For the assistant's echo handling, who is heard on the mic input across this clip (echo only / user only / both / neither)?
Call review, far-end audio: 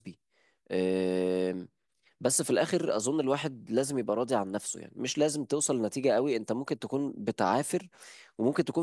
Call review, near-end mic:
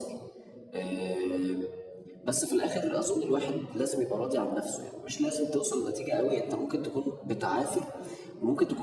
echo only